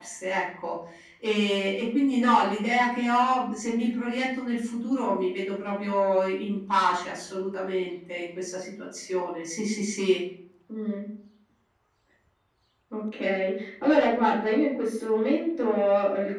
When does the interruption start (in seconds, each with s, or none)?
none